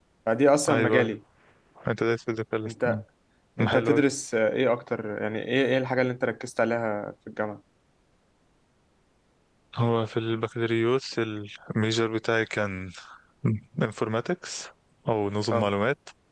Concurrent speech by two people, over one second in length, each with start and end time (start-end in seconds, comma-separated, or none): none